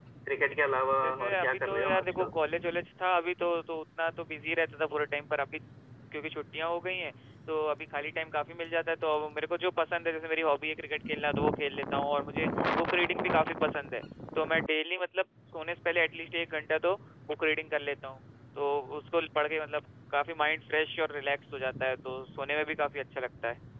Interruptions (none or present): present